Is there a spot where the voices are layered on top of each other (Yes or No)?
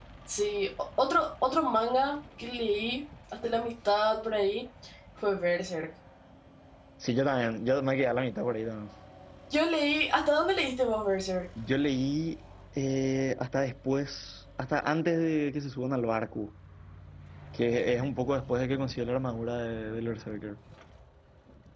No